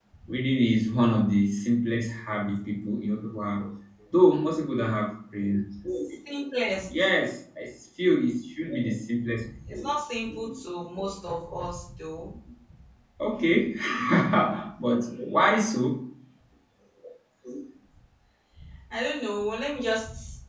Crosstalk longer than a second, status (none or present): none